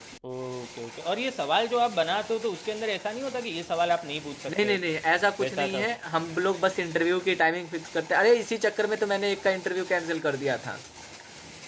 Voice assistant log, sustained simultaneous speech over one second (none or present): none